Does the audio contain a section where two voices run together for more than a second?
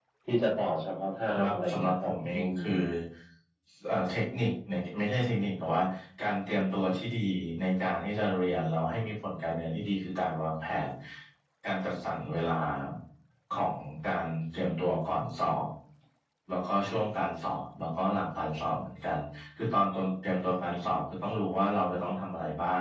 Yes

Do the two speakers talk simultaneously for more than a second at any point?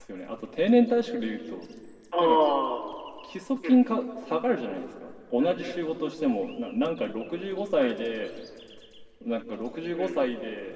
No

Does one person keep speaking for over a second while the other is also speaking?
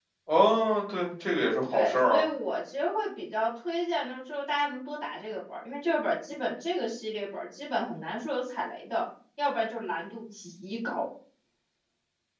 No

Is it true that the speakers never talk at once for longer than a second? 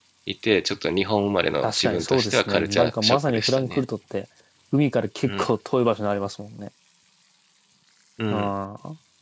No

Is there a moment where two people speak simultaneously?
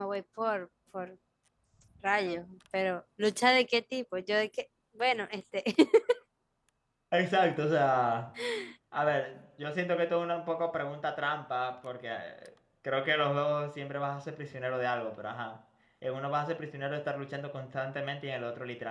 No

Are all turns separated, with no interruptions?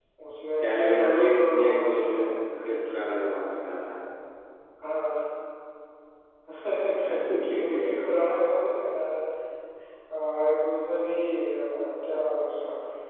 No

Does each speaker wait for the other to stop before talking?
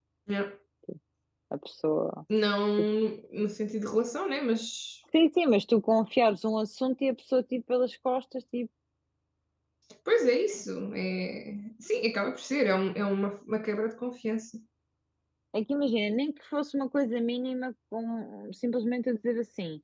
Yes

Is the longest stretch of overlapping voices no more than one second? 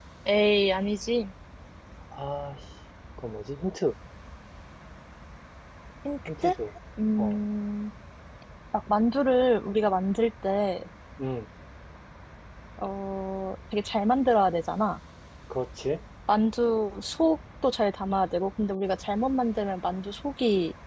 Yes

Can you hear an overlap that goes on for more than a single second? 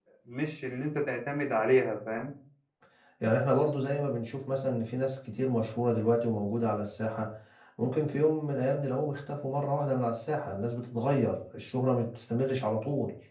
No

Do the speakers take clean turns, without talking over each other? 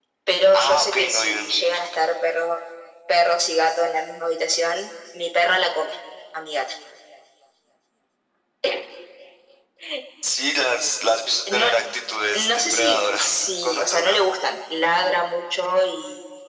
No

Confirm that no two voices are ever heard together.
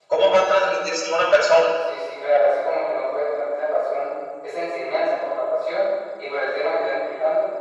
Yes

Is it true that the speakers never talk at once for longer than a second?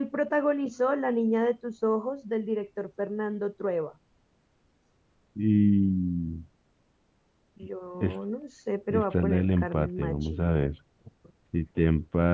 No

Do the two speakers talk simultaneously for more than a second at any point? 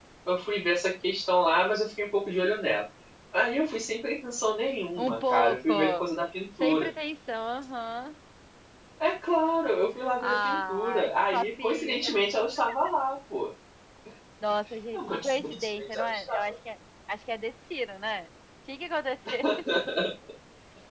Yes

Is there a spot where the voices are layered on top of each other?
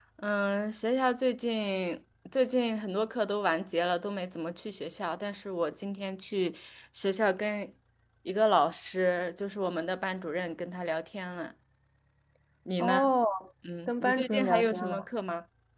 Yes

